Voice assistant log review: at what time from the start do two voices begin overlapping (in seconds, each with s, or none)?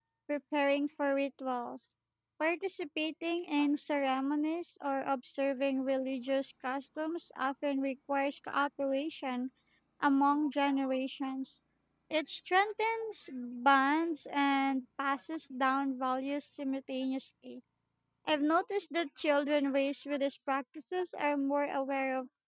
none